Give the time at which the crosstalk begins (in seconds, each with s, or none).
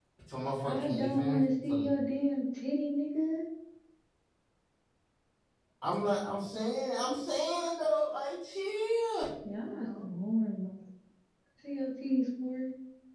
0.6 s